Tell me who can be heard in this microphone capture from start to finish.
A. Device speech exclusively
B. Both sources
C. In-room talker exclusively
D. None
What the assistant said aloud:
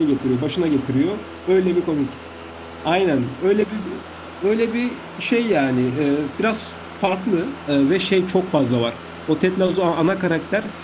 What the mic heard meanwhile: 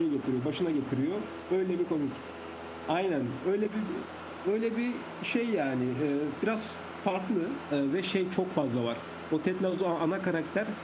A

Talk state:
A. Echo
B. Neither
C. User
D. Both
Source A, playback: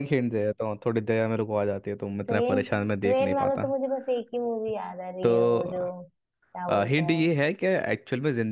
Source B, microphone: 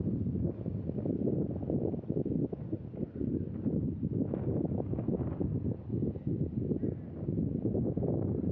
B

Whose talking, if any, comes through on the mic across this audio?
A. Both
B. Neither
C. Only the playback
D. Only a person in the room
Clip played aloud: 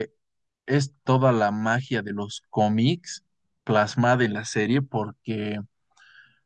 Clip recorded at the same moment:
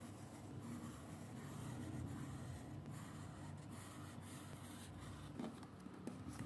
B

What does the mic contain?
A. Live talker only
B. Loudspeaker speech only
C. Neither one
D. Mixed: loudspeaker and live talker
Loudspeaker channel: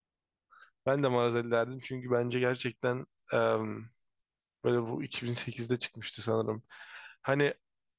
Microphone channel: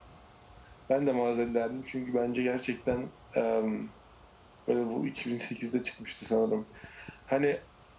B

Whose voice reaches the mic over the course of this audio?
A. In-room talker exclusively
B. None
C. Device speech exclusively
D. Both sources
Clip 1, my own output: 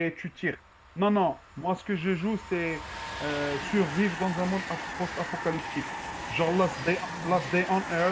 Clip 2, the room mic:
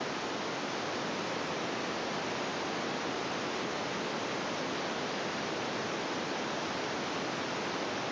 B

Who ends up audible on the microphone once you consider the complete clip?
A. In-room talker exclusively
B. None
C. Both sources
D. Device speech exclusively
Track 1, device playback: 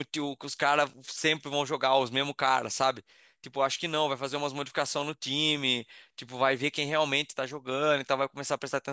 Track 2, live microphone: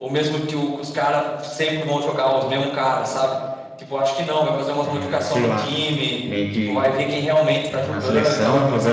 C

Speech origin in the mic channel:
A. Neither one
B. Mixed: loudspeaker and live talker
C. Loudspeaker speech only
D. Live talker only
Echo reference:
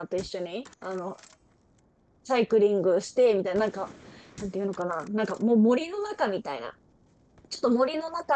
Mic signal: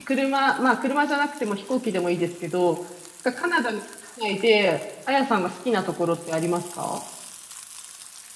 D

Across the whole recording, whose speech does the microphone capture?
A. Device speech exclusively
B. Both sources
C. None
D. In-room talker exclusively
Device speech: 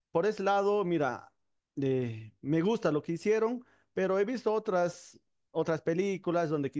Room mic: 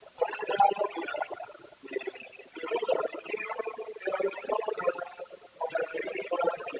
A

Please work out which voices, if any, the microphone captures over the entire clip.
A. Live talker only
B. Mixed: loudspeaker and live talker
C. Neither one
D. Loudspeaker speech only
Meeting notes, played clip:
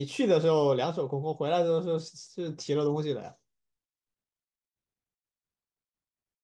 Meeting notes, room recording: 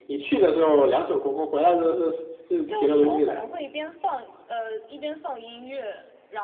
B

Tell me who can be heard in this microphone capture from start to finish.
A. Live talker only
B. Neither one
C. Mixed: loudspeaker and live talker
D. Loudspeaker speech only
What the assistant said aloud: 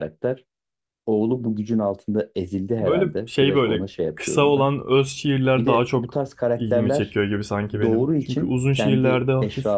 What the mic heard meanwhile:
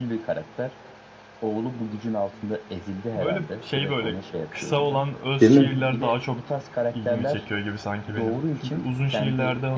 C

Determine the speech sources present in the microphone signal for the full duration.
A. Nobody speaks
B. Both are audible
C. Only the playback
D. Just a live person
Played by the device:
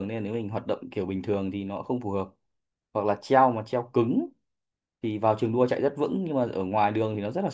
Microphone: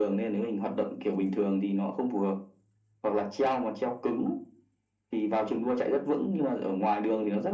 C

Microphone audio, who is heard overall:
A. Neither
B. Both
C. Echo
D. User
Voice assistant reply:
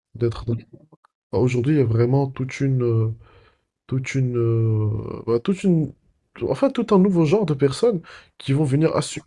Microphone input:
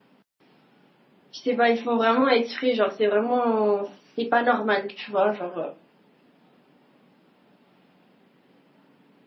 D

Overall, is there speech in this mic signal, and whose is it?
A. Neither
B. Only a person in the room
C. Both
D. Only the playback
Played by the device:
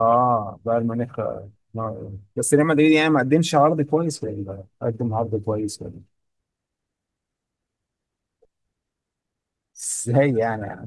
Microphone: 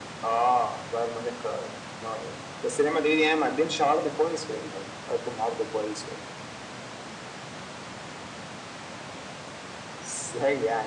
D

